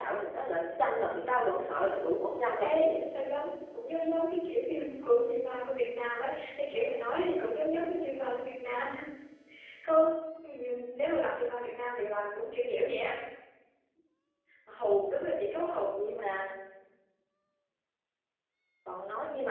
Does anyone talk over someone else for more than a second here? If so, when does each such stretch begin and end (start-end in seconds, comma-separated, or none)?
none